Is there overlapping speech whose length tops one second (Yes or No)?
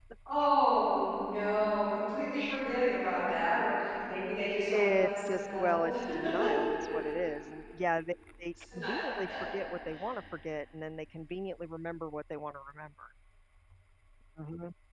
Yes